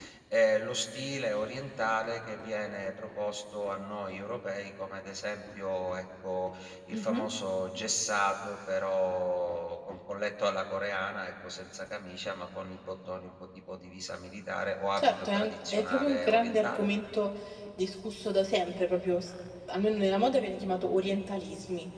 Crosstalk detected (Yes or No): Yes